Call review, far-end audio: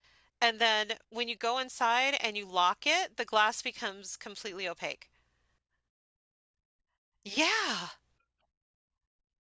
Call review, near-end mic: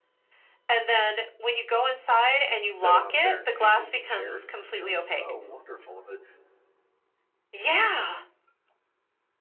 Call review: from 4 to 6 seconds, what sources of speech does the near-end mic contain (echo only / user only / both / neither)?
both